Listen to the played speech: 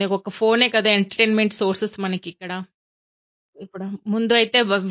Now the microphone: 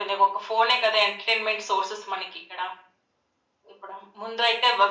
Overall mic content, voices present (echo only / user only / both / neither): echo only